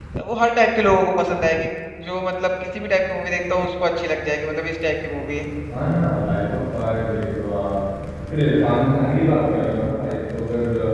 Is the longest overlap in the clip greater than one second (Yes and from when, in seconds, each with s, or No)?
No